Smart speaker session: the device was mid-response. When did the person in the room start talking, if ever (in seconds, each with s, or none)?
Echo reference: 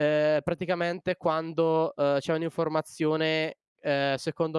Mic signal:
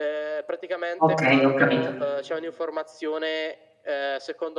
1.0 s